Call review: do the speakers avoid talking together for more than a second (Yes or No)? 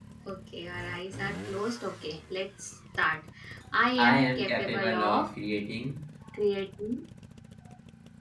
No